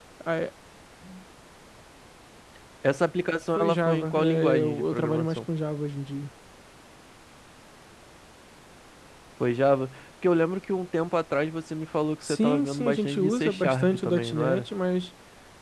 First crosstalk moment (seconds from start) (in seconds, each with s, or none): 3.6 s